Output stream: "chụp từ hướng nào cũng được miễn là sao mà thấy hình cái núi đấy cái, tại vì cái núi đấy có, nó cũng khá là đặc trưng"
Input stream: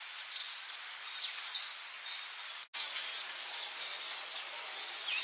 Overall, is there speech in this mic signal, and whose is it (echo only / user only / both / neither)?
neither